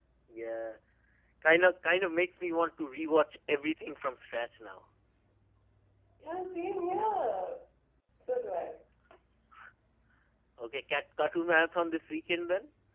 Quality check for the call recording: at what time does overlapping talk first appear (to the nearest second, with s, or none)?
none